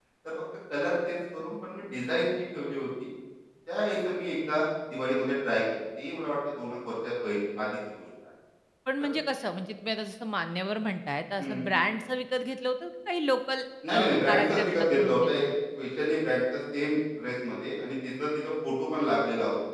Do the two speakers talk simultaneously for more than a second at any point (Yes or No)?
Yes